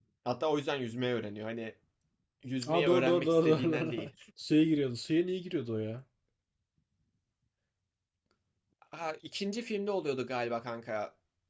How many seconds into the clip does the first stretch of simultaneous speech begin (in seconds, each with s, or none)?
2.7 s